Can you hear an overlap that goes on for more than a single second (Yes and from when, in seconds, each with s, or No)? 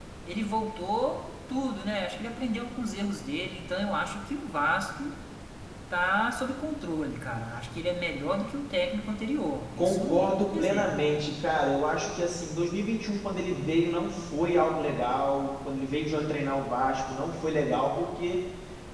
Yes, from 9.8 s